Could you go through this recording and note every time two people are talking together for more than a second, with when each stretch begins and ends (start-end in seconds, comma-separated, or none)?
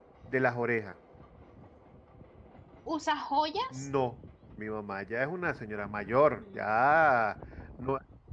none